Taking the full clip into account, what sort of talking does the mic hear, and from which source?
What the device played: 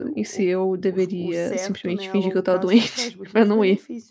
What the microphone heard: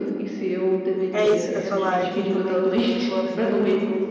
both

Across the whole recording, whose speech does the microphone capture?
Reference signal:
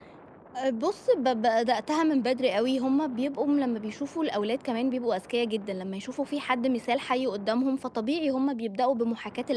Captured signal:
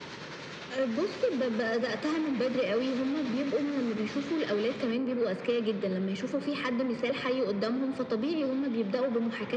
echo only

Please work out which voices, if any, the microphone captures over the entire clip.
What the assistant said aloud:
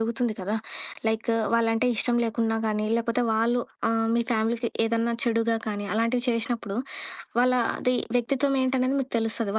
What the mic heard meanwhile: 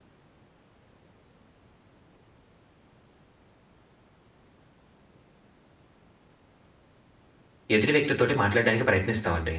user only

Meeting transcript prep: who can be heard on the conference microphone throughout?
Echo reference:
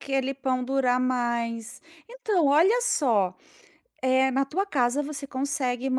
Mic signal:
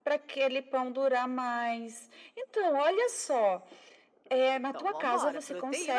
both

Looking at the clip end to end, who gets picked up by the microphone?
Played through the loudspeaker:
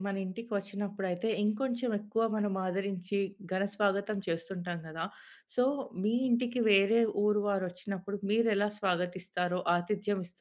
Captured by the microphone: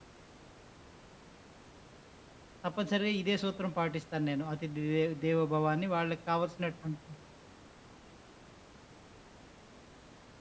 user only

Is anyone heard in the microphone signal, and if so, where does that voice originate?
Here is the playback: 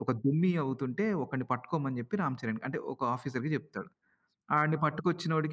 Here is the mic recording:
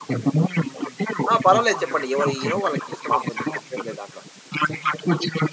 both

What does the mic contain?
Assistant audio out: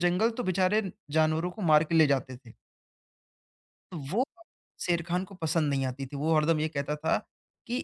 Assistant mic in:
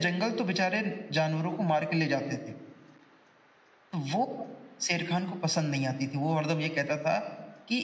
echo only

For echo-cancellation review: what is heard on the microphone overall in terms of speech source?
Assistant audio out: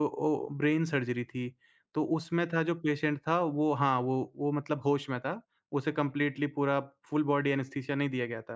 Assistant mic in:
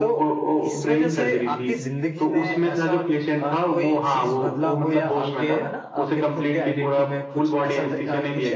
both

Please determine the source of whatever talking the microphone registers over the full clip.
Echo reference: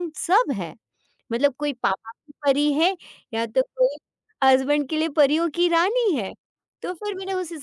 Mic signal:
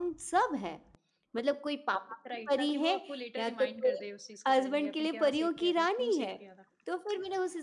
both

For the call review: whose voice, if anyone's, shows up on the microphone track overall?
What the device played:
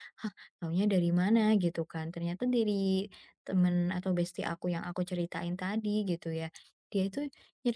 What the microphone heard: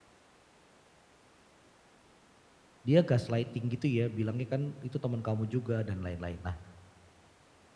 user only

